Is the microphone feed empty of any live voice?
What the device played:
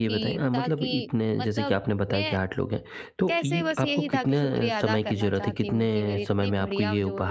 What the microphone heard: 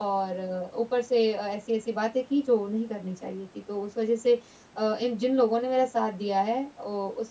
No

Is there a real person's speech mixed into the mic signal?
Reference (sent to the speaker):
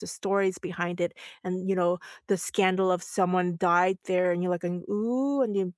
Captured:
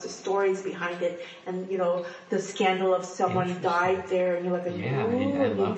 Yes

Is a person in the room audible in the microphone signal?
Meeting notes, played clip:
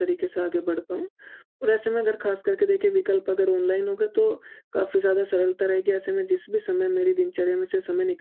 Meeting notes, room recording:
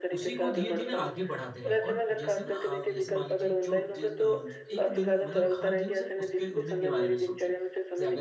Yes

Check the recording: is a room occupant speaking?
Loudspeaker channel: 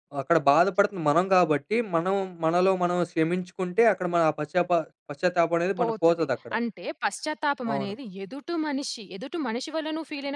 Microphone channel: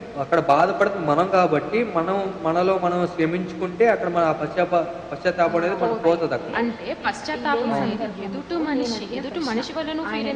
Yes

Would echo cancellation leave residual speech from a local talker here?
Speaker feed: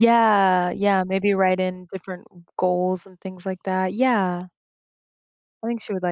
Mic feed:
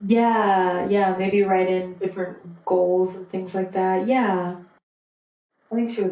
No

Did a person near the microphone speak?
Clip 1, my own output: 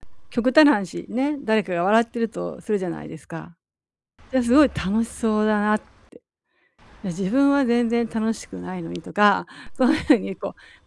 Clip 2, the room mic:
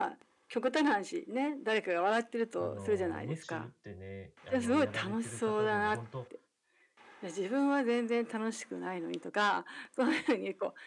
Yes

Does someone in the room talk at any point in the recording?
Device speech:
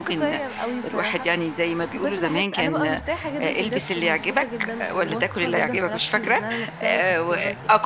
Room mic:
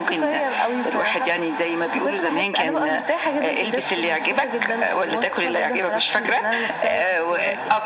No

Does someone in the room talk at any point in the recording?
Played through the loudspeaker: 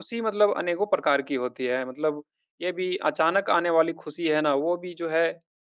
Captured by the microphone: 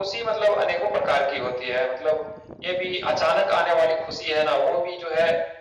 No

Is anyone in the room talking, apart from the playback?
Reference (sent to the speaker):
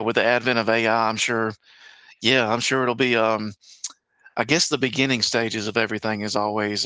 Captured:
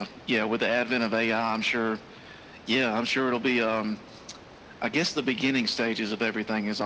No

